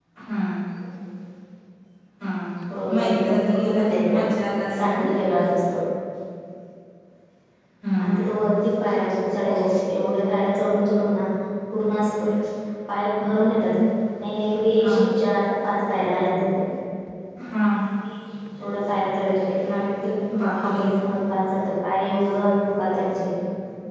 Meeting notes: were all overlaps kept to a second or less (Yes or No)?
No